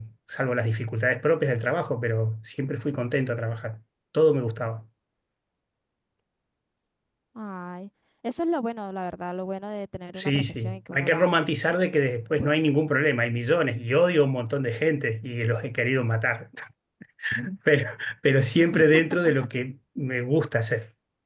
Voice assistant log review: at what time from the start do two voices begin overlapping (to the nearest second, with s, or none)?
10 s